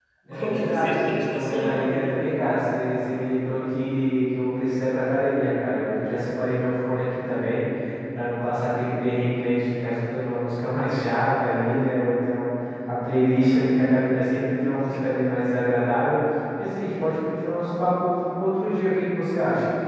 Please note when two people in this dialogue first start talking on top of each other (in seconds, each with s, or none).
0.5 s